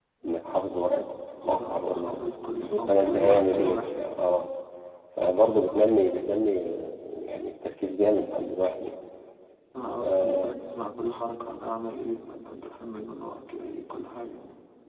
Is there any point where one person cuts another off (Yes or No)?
Yes